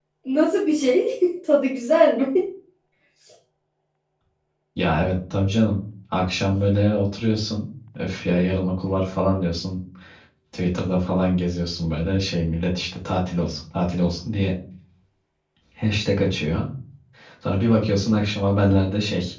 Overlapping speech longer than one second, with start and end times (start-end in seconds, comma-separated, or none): none